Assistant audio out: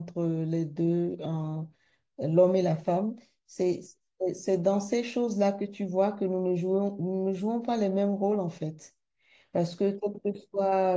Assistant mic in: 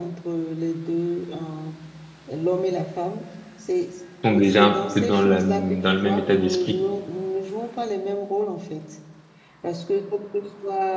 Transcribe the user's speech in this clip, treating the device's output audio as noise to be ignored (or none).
sont déjà un peu dans la, dans le même état d'esprit.